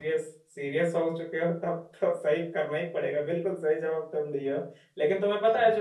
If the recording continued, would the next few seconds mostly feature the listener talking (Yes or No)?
No